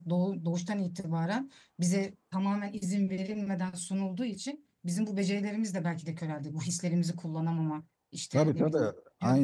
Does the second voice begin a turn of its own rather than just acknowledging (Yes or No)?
Yes